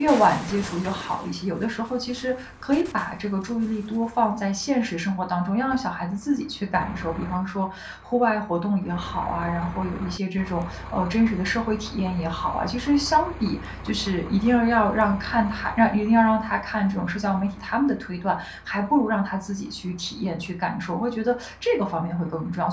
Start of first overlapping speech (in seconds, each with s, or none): none